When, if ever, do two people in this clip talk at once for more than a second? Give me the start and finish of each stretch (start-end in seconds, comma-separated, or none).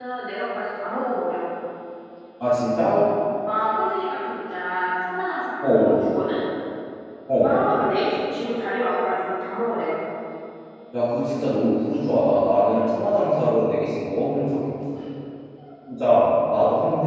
none